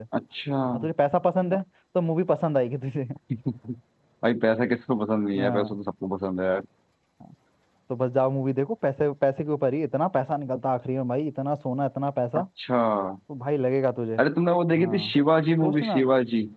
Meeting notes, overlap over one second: none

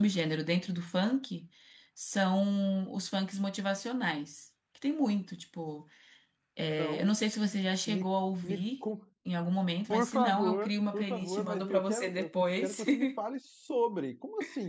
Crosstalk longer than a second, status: present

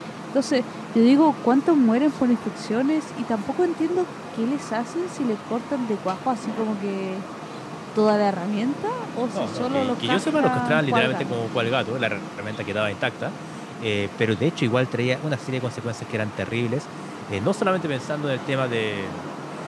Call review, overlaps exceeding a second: present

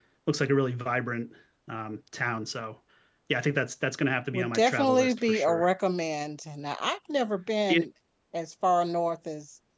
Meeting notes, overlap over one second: present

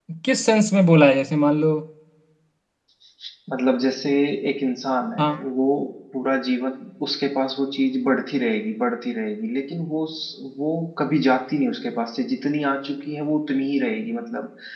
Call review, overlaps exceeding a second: none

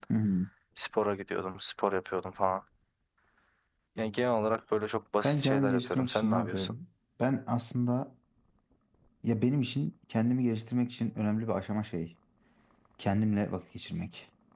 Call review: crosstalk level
present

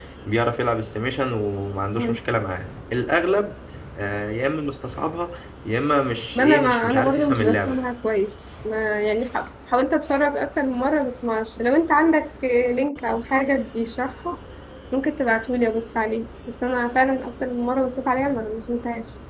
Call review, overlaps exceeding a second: present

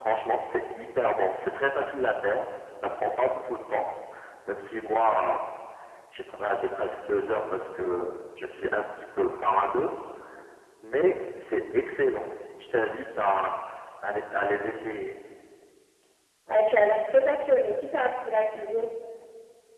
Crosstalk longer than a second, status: none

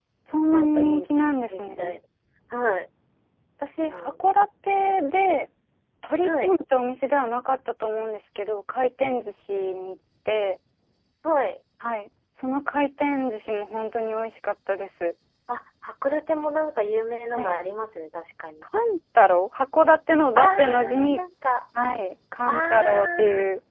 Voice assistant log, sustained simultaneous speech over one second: present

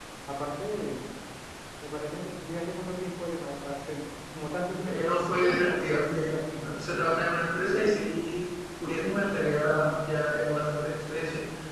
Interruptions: present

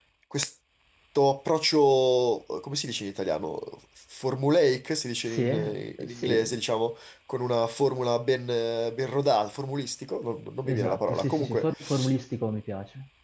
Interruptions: present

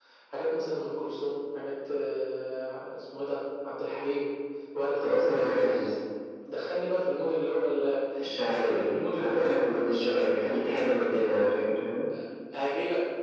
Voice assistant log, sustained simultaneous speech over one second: present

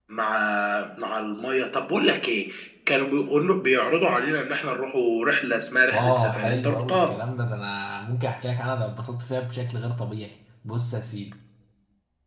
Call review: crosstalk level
present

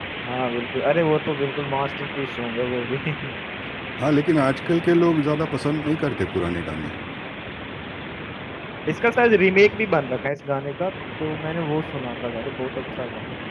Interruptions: none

